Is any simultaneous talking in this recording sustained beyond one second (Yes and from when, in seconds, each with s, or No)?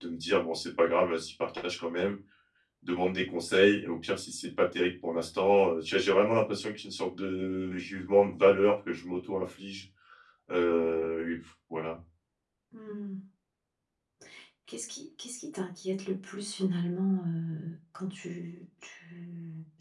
No